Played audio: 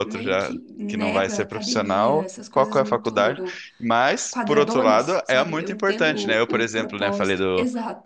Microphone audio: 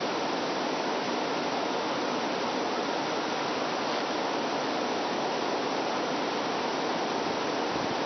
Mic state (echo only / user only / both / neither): neither